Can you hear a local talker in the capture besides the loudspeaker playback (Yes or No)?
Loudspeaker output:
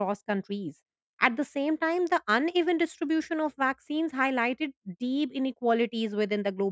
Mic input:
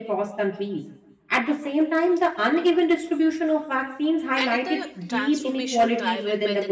Yes